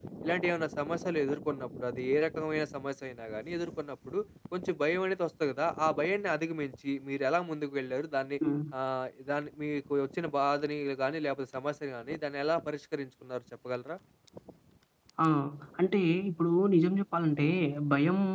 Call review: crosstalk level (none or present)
none